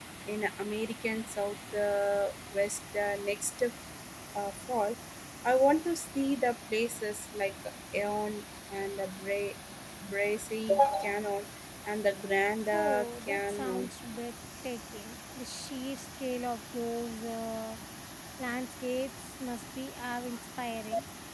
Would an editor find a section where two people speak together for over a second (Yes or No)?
Yes